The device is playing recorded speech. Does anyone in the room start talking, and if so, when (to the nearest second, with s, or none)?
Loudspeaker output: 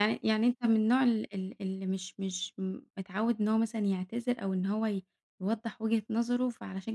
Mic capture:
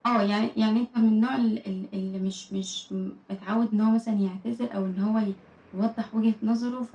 none